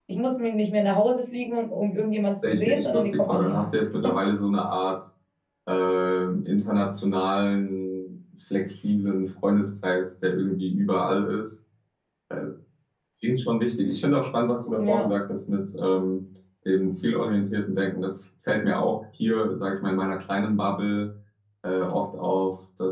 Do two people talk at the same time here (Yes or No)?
Yes